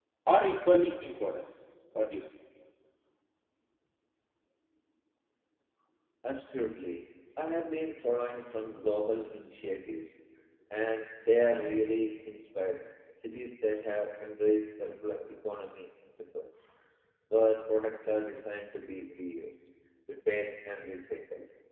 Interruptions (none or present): none